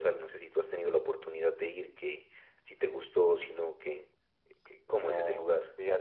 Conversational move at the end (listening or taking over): taking over